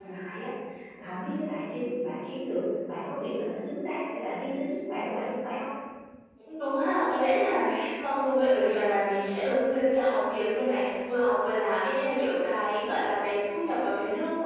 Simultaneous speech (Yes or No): No